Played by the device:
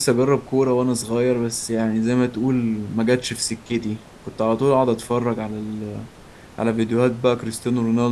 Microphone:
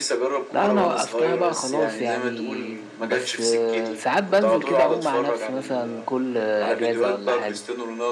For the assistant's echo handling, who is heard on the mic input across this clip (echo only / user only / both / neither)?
both